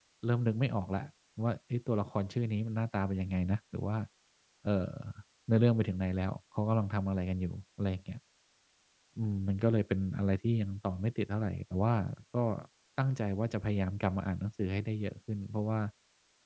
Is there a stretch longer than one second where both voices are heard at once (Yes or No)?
No